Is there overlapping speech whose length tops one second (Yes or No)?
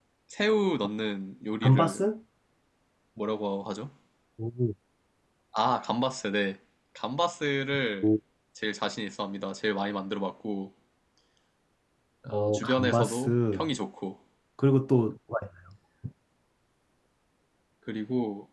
Yes